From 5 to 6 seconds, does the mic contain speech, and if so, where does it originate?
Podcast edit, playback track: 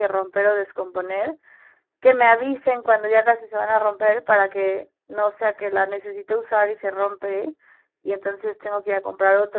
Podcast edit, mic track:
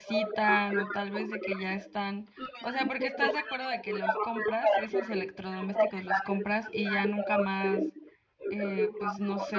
both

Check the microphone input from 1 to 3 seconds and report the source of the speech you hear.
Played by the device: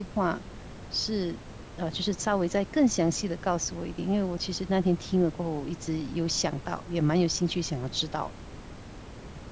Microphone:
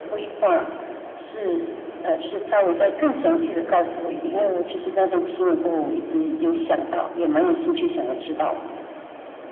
echo only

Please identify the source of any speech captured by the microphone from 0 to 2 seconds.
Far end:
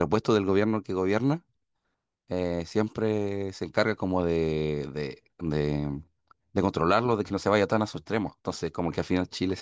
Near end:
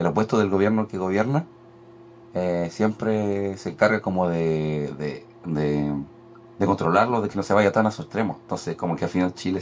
echo only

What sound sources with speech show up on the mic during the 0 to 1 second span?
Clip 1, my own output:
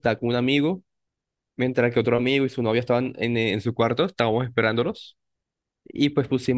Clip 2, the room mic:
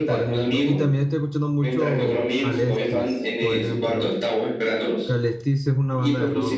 both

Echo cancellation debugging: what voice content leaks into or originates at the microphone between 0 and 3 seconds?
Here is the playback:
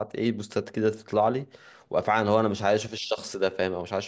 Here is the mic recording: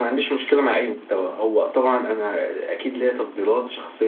user only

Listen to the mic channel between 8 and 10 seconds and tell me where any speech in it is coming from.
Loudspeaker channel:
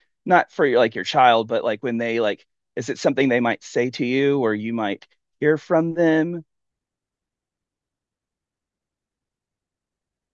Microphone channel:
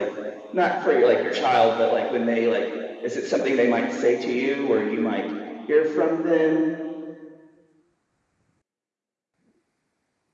neither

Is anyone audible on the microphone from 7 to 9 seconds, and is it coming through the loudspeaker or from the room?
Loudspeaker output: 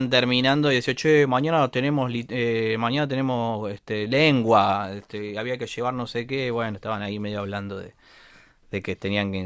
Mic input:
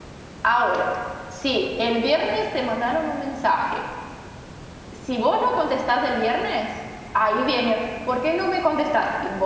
user only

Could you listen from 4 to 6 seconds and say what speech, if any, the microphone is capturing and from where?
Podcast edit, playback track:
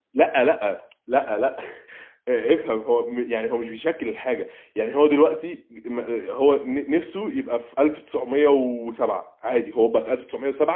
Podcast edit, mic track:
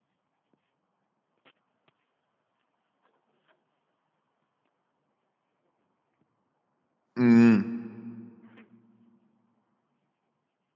neither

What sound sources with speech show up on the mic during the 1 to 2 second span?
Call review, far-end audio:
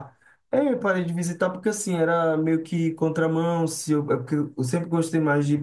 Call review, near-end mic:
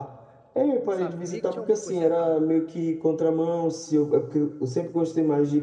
both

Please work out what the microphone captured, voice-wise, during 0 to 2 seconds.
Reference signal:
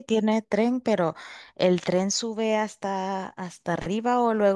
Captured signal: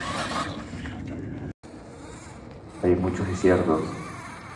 neither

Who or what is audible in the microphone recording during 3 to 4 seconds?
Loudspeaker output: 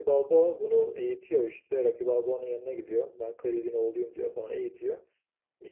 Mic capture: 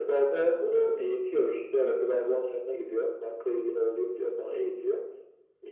echo only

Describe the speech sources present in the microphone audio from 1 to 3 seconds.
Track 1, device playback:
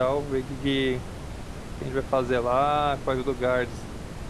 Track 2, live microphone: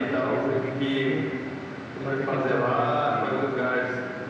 both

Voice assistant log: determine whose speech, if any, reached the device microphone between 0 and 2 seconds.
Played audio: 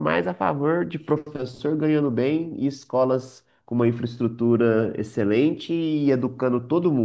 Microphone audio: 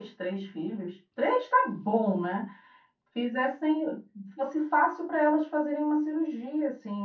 user only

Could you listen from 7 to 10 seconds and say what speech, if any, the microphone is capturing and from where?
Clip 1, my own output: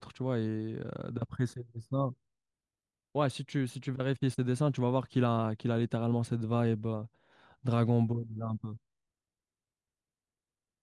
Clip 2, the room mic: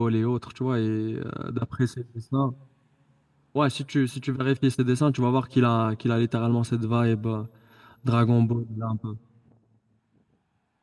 echo only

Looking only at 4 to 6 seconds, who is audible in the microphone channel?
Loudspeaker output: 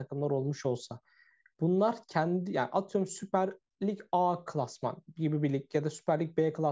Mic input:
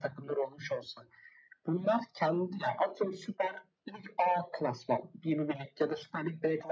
echo only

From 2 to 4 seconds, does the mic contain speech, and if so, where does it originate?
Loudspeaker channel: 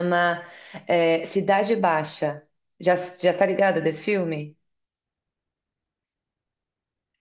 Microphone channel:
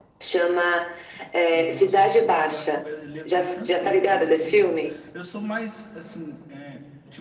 both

